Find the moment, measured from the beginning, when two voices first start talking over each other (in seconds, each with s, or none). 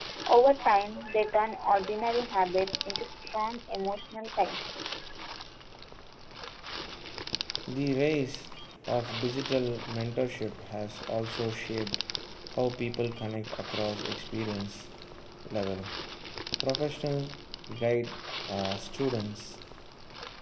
none